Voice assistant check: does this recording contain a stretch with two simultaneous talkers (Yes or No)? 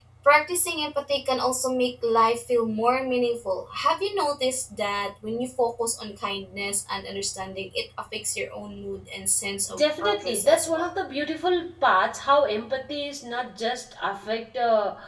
Yes